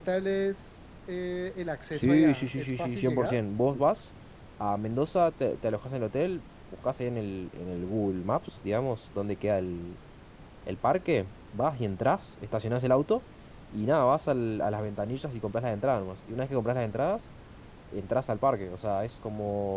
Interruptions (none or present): present